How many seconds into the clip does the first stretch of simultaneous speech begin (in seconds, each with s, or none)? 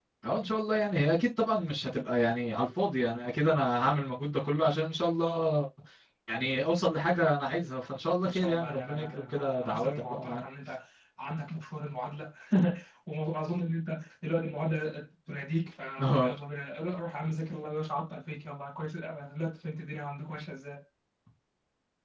8.2 s